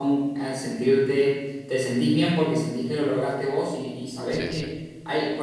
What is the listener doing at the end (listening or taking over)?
listening